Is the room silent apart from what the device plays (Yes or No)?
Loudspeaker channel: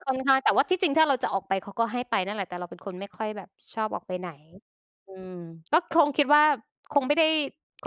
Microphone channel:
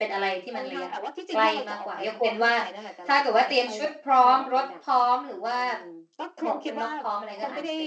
No